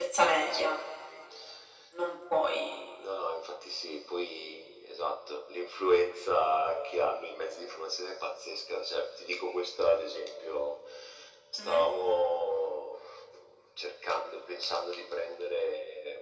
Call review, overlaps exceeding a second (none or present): none